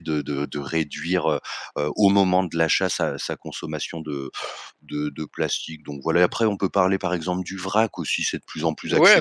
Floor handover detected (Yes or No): Yes